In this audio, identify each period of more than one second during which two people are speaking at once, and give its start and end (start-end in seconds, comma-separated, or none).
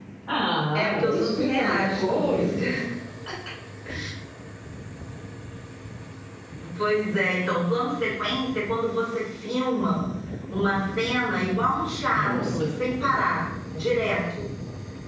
0.7-2.6